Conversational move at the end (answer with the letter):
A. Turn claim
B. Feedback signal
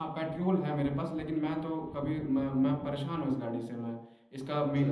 B